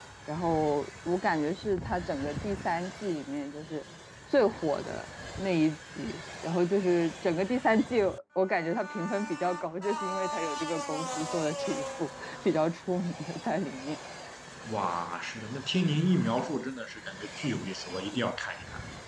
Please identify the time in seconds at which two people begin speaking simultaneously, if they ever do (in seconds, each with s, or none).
none